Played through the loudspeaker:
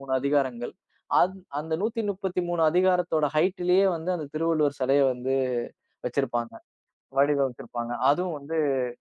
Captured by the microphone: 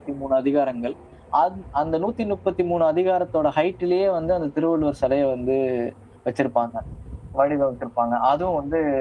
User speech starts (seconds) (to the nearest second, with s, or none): none